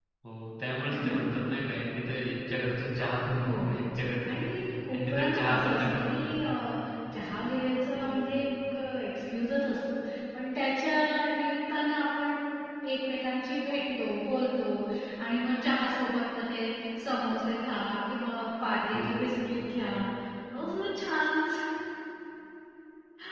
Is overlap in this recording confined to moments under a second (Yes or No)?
No